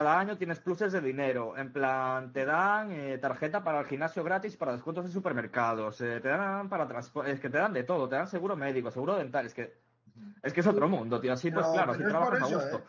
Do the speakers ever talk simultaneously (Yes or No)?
Yes